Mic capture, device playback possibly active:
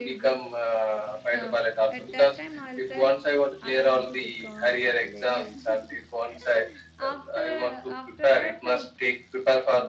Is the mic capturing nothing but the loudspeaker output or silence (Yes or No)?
No